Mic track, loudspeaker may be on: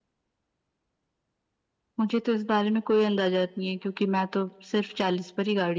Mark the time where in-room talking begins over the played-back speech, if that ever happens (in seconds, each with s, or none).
none